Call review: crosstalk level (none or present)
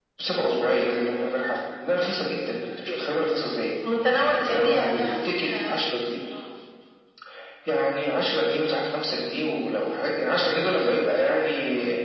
present